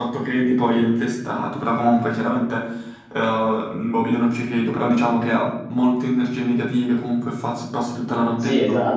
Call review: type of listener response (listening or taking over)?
taking over